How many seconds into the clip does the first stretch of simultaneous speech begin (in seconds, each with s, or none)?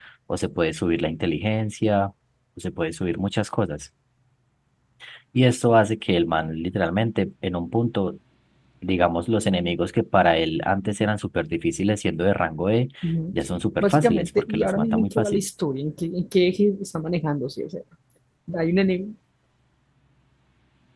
13.8 s